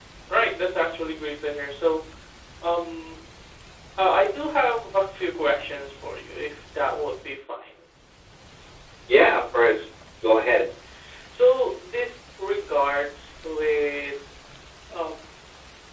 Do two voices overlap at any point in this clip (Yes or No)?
No